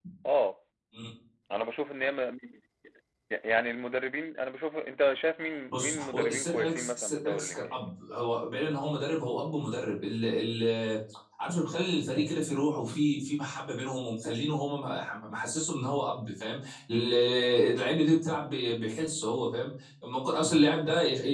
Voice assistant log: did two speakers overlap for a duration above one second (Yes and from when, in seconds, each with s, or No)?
Yes, from 5.7 s